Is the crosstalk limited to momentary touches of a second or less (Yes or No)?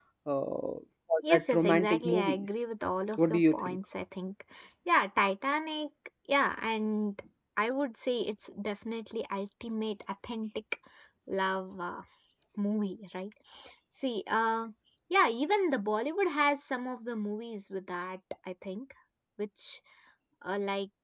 No